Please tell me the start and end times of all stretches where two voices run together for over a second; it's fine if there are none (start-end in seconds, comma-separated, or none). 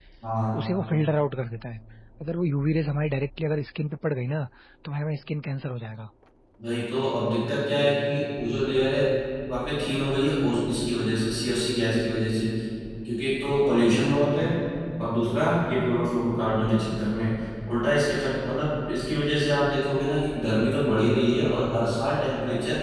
none